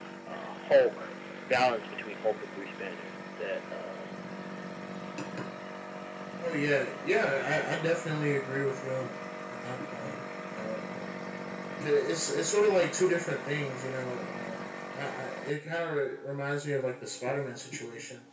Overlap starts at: none

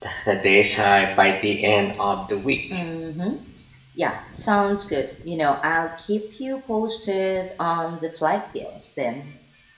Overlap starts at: none

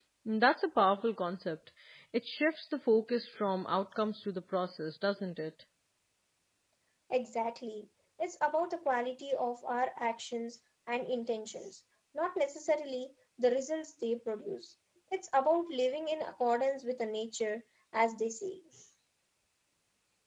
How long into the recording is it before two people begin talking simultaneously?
none

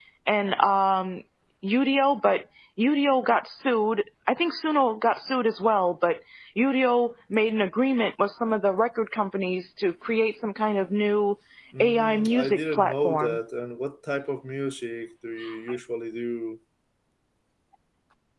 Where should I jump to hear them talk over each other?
11.8 s

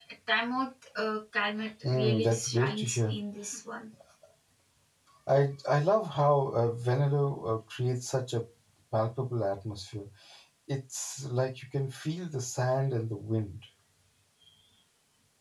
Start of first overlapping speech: 1.8 s

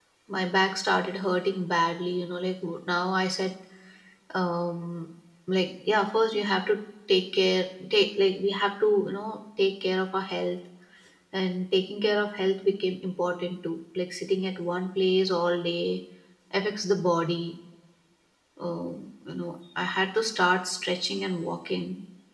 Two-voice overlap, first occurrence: none

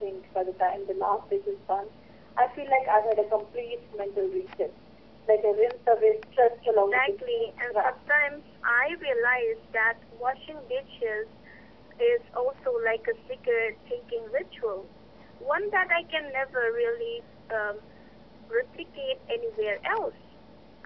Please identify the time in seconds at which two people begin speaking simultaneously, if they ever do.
6.6 s

